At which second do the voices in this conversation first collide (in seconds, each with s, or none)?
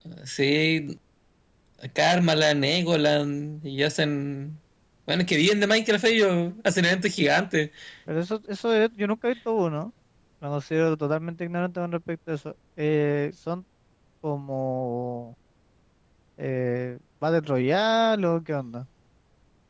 none